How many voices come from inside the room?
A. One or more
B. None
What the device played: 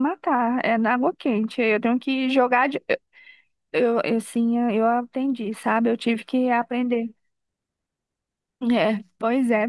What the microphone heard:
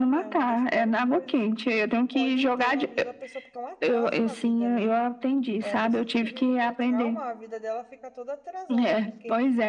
A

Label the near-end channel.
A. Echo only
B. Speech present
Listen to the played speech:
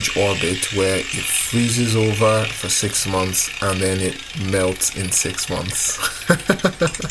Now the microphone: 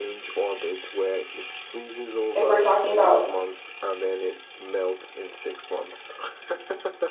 B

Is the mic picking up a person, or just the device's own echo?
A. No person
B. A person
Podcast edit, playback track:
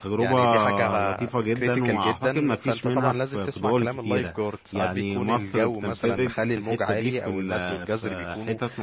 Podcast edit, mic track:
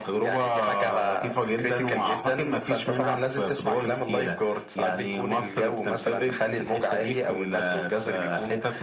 A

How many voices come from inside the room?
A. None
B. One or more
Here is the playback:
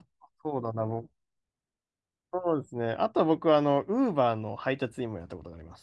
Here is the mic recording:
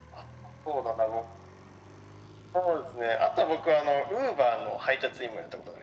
A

